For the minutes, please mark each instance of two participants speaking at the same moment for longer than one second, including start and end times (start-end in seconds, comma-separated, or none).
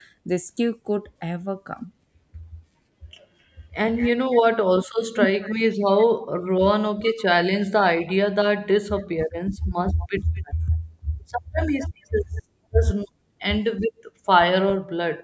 none